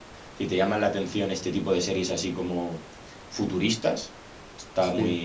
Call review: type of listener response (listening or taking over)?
listening